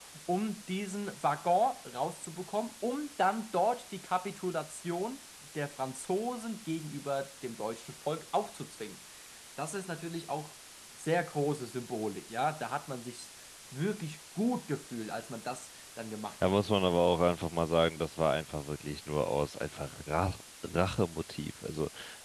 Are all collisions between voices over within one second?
Yes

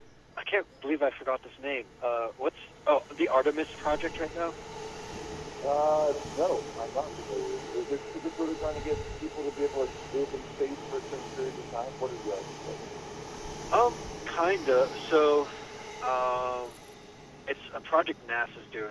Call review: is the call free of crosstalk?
Yes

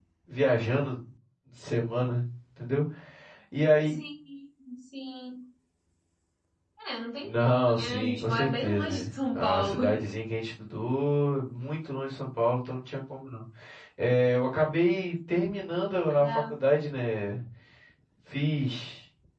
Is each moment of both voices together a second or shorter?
No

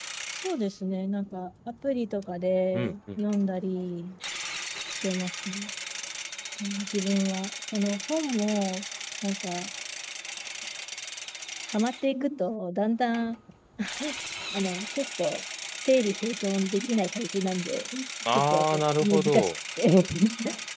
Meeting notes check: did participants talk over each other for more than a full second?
Yes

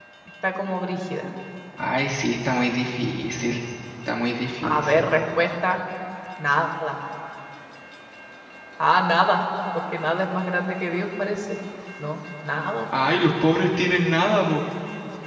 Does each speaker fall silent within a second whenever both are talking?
Yes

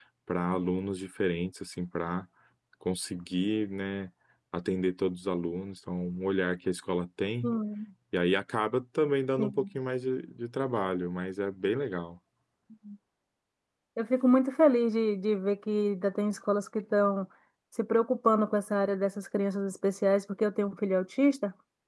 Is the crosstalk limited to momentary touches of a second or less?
Yes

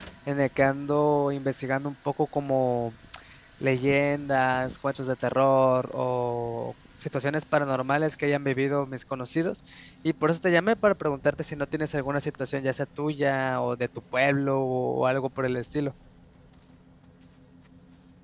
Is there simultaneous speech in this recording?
No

